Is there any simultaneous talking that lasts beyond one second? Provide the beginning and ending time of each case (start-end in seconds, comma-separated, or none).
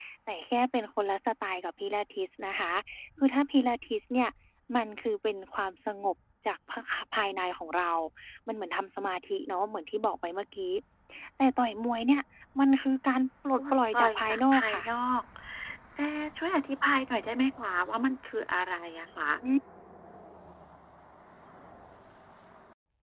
13.6-14.8